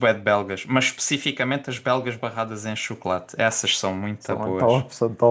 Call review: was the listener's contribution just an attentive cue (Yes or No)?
No